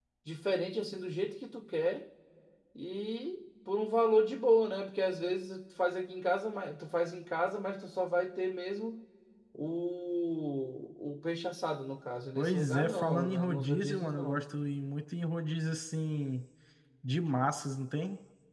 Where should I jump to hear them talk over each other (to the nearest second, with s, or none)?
12 s